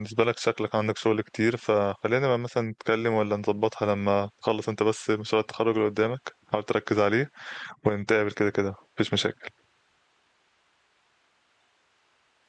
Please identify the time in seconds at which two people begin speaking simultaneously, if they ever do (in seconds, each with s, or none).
none